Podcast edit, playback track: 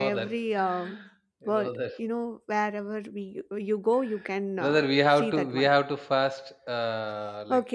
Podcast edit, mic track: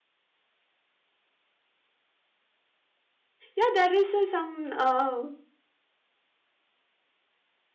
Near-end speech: present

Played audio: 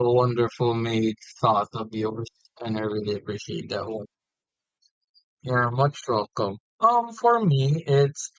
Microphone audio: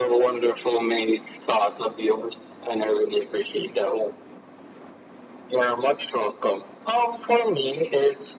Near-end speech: none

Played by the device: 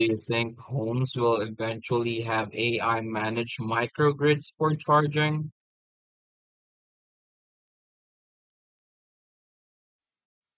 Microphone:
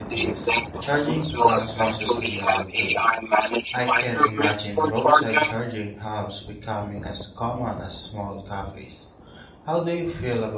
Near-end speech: present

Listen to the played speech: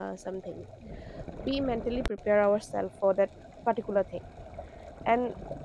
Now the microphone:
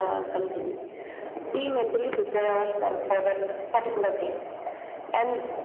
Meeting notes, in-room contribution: none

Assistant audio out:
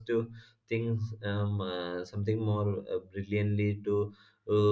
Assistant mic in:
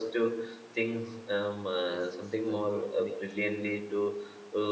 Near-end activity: present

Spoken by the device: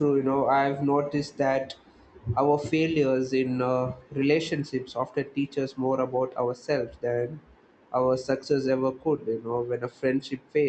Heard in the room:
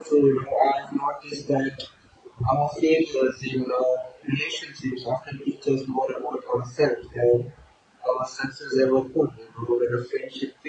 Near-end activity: none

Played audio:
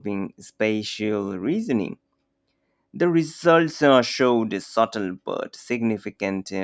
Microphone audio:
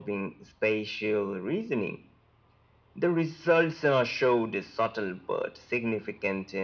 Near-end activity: none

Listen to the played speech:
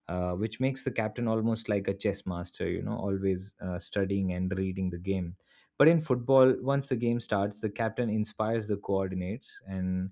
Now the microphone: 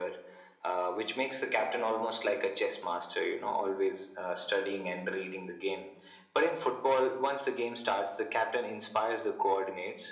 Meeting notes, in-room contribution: none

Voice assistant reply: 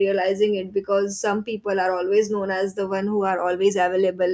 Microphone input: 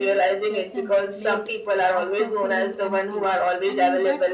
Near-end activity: present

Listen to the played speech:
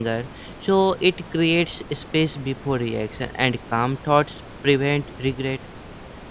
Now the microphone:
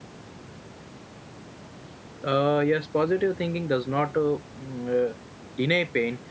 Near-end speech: present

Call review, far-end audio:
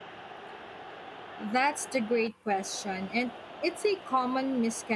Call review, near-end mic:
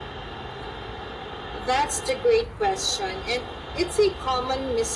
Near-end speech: none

